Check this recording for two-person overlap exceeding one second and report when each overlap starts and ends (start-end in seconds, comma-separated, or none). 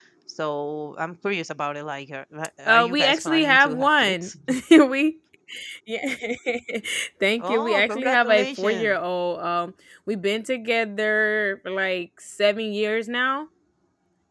2.7-4.3, 7.4-8.9